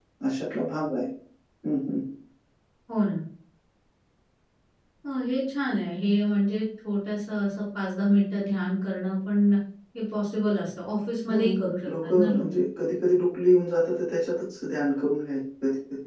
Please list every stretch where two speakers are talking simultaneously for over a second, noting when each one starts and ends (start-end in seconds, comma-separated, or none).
11.3-12.6